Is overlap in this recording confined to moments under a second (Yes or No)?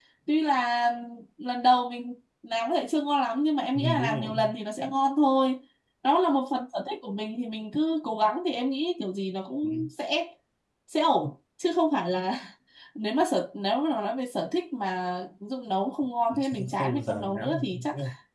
No